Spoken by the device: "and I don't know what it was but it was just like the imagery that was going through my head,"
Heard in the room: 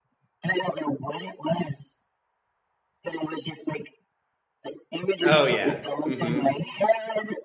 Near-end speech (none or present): present